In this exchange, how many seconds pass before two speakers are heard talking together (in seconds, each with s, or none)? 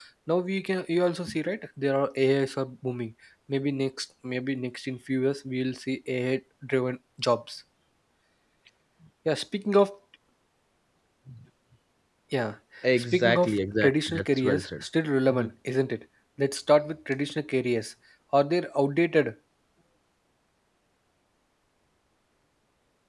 13.1 s